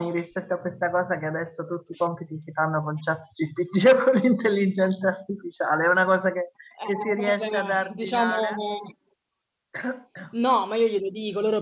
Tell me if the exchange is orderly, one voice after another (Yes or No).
No